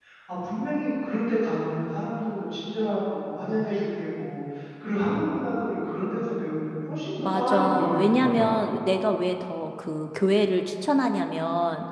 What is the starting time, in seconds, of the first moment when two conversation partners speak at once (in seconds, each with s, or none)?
7.2 s